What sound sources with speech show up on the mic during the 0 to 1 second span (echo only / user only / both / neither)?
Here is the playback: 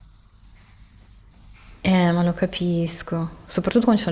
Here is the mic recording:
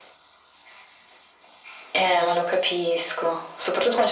neither